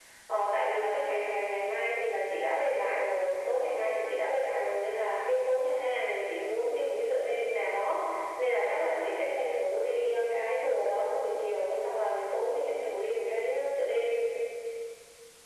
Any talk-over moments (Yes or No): No